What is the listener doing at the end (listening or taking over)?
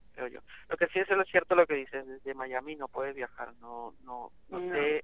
listening